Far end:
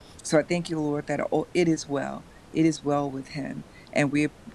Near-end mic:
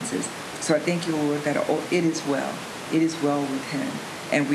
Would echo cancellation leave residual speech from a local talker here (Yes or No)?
No